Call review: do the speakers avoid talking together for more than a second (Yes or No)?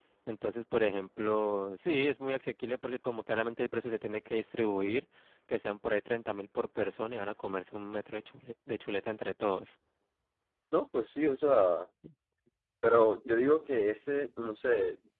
Yes